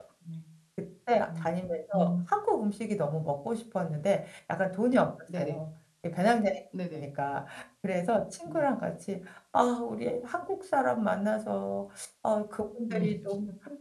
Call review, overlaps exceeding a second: none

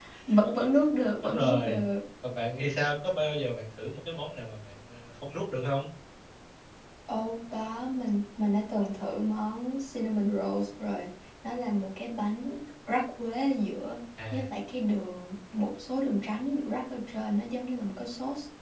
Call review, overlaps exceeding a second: none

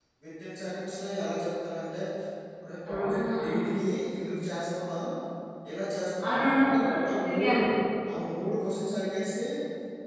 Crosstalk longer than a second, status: present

